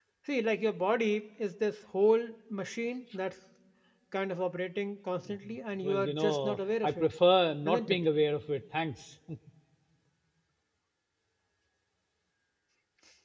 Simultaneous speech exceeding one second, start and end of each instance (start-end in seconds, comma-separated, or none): 5.8-7.0